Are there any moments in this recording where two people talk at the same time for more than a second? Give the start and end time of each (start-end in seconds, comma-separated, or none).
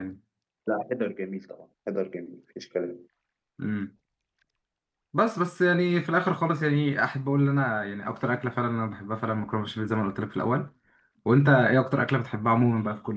none